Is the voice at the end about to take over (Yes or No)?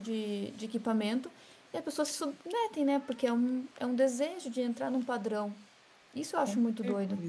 Yes